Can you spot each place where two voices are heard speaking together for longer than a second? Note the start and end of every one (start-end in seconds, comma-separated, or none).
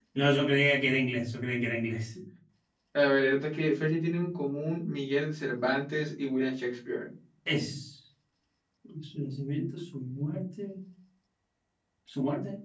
none